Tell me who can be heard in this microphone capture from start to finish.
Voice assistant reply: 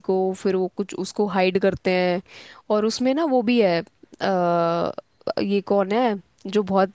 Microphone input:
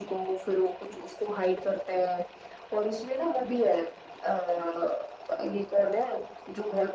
echo only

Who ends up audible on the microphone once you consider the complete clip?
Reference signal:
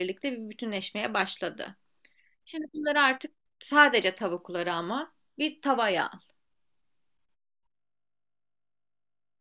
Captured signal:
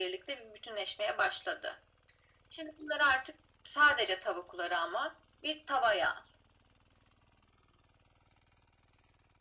echo only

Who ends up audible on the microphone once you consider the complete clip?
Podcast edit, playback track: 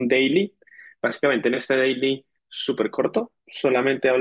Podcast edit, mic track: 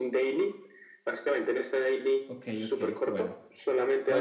both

